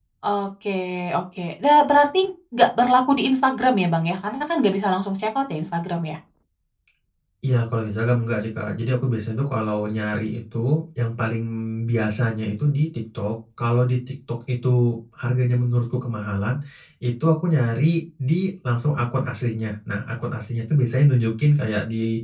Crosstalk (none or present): none